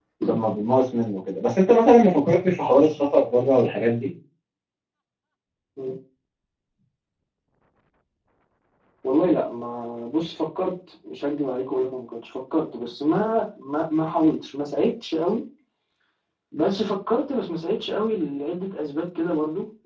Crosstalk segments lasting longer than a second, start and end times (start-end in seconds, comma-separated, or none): none